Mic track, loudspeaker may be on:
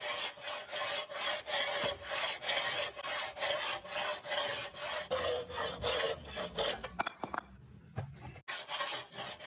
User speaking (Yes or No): No